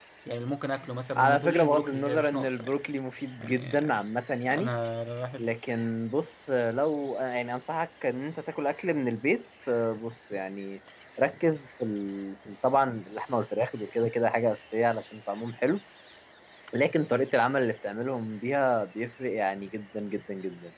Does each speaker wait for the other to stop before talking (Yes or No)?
No